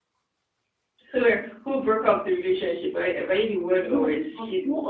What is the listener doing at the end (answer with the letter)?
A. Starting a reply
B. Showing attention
A